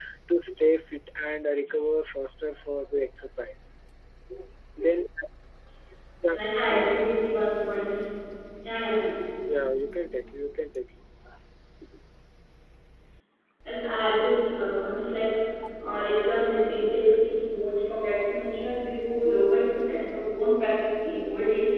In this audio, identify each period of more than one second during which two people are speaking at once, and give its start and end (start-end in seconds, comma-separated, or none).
none